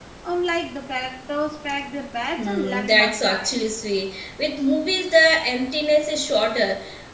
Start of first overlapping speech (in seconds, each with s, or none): 2.4 s